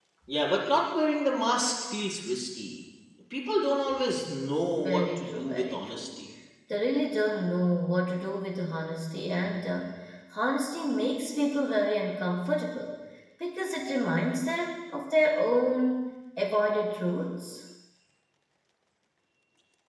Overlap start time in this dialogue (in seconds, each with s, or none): 4.8 s